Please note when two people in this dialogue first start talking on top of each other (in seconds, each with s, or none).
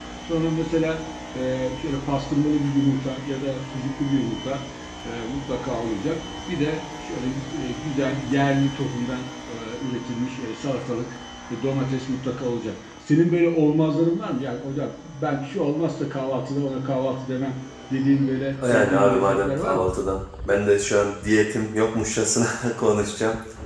18.6 s